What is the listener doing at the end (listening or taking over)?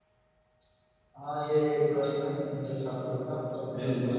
taking over